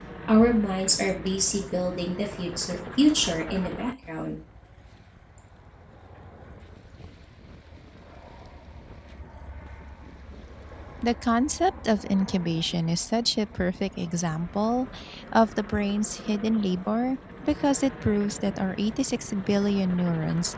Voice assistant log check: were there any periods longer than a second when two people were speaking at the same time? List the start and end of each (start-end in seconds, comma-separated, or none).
none